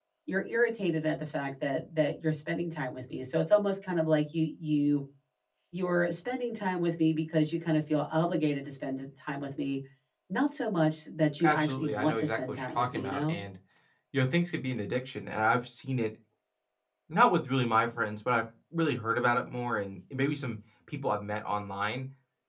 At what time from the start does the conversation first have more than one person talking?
11.4 s

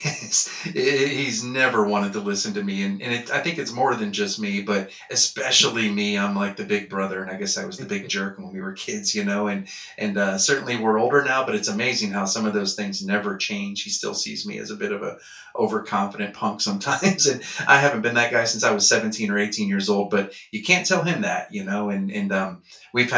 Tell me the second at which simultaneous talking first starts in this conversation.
none

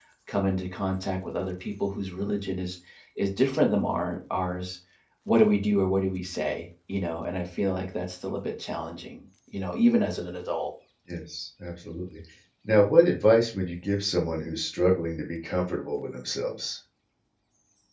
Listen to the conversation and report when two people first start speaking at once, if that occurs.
none

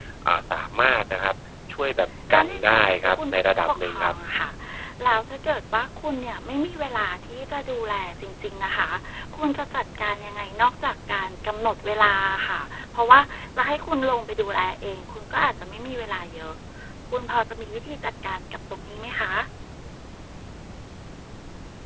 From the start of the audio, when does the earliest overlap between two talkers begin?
2.3 s

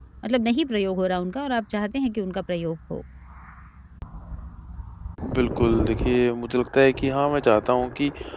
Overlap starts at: none

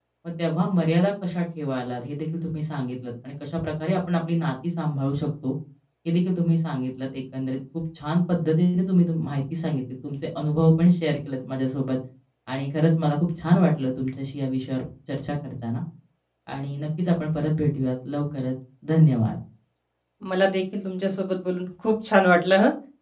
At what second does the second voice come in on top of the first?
none

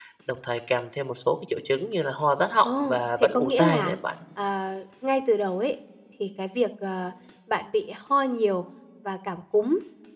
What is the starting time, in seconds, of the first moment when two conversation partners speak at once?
2.6 s

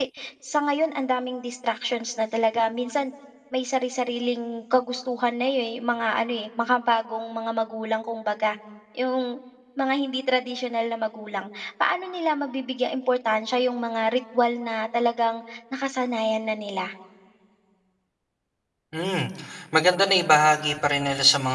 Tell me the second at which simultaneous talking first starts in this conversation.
none

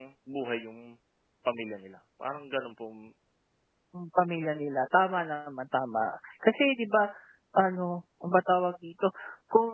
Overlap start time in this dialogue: none

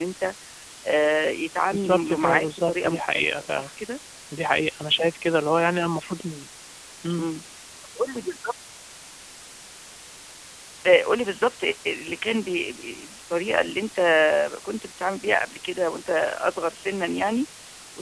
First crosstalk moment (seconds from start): 1.7 s

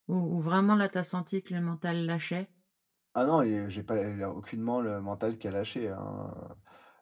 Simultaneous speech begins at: none

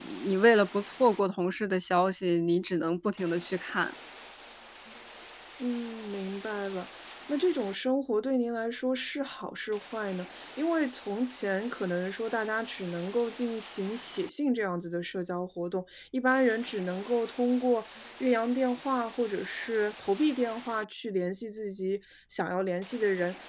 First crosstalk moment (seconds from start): none

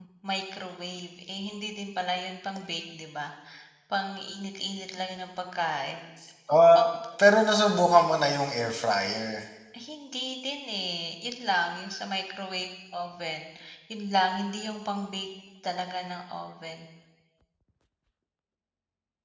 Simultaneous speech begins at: none

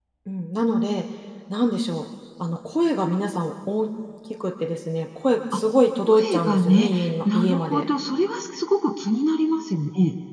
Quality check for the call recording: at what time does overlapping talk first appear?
6.0 s

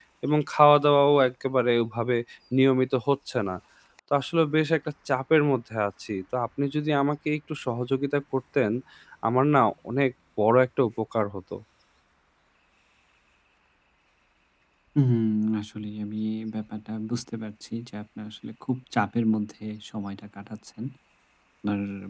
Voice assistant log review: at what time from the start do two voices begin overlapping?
none

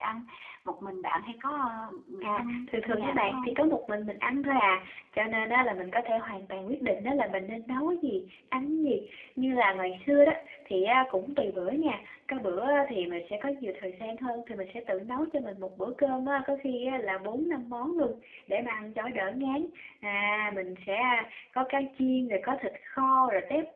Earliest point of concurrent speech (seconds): 2.2 s

